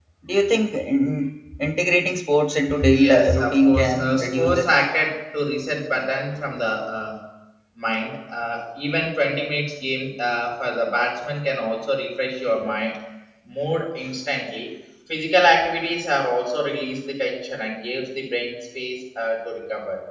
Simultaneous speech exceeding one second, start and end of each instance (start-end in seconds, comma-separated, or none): 2.9-4.6